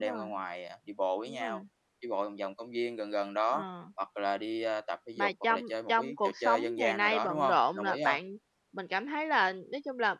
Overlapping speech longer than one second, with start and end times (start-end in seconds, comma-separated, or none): 5.2-8.2